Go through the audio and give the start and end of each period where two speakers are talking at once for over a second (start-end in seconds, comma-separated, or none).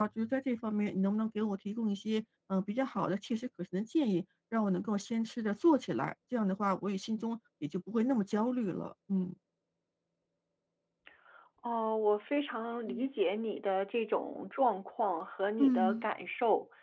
none